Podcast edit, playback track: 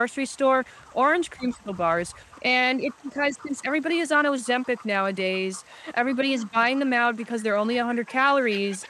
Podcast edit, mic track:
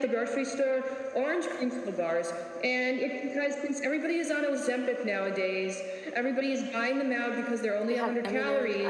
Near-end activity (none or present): present